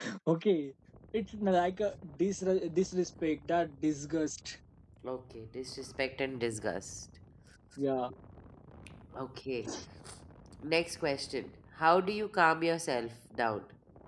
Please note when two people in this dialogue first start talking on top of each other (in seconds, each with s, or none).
none